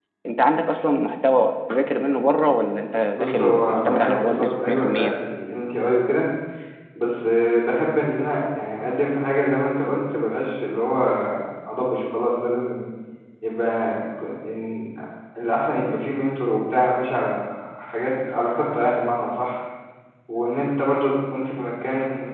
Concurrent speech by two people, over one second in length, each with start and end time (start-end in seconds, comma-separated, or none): 3.1-5.1